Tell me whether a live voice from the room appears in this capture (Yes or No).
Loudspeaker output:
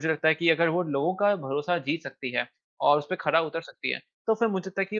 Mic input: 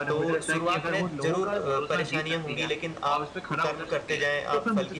Yes